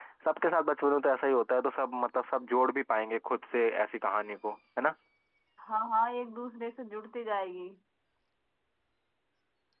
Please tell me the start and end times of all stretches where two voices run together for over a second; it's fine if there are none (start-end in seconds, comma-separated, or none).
none